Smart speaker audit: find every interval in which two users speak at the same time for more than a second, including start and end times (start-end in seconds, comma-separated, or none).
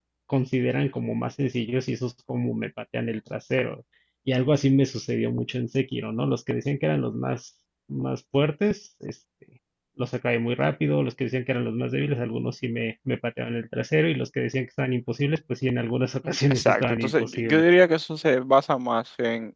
16.2-17.6